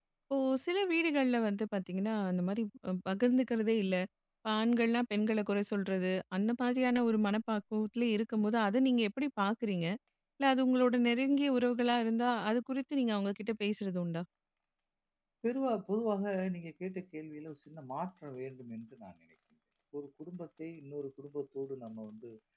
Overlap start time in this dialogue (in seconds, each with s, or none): none